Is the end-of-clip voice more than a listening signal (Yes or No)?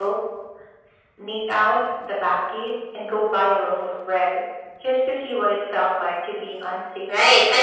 Yes